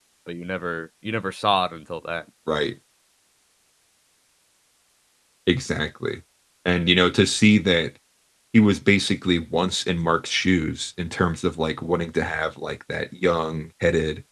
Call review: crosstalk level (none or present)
none